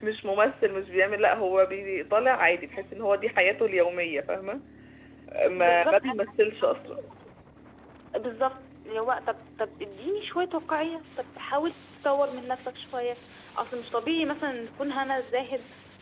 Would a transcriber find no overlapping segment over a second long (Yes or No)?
No